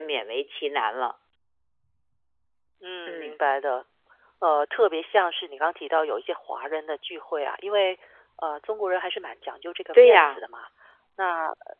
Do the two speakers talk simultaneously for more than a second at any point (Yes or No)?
No